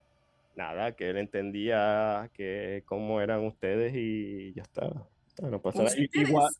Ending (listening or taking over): listening